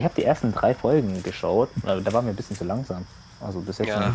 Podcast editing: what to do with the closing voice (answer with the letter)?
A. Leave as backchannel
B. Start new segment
A